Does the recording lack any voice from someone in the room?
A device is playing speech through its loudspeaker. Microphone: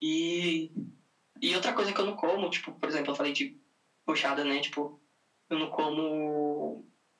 Yes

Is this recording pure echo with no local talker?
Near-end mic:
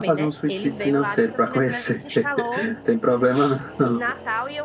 No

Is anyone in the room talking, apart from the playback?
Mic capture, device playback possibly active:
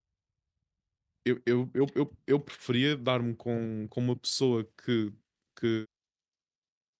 Yes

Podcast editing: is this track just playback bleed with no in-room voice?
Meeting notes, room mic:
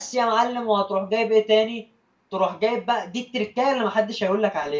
No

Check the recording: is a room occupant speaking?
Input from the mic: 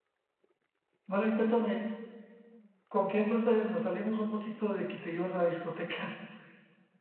No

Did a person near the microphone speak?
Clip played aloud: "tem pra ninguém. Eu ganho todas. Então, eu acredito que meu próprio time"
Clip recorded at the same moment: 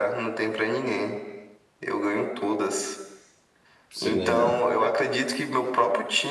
Yes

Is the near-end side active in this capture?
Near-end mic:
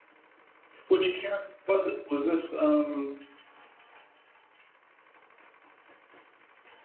Yes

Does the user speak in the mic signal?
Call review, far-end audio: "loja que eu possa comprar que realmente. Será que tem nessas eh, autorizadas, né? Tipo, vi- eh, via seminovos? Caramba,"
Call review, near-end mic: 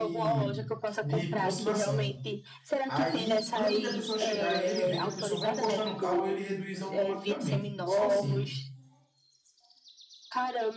Yes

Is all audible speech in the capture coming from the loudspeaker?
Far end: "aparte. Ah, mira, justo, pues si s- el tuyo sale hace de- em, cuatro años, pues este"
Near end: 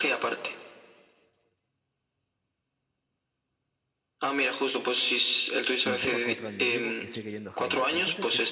No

